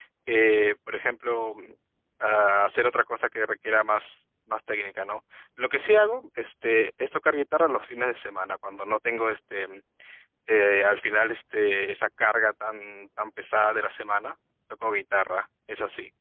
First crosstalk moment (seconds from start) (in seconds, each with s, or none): none